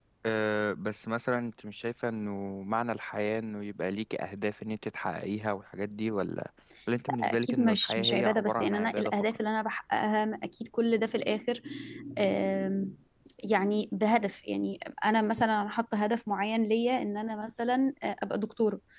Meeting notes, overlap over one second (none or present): present